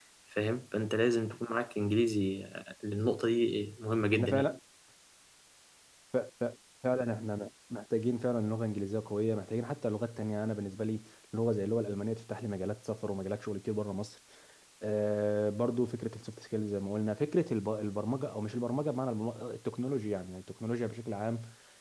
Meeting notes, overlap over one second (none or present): none